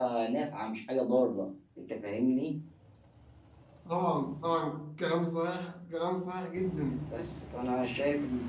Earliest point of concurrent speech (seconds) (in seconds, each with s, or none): none